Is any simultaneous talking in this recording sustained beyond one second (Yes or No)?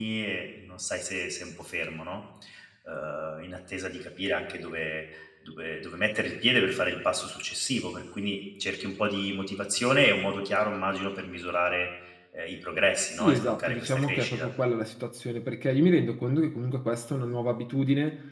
Yes